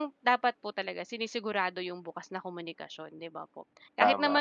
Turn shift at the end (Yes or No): No